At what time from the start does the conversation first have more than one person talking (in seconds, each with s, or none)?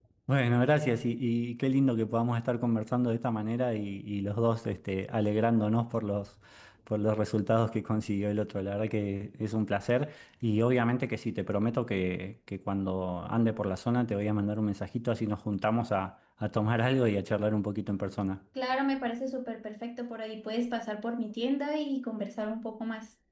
none